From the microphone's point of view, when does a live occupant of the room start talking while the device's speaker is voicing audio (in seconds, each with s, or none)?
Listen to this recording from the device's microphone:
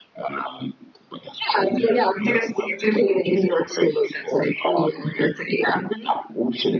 none